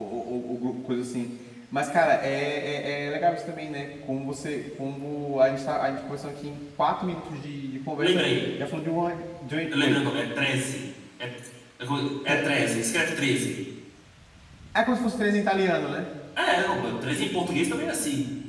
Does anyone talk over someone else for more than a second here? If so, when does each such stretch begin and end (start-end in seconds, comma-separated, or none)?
none